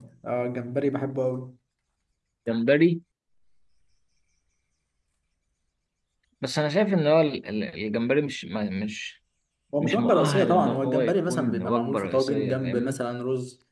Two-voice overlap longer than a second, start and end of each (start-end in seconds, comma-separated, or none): 9.8-13.0